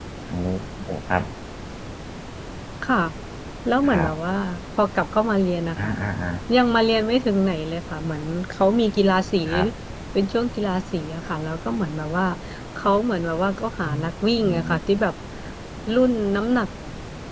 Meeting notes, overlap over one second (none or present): none